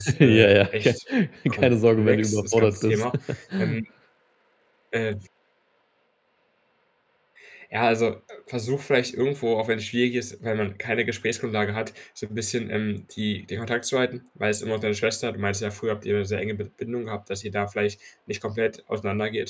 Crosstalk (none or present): present